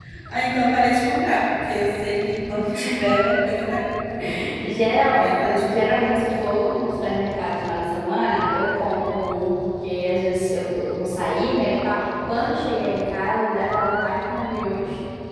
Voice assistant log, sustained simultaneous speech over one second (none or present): none